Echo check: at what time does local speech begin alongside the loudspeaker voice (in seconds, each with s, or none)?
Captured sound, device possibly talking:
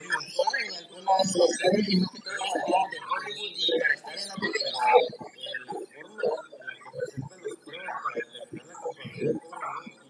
none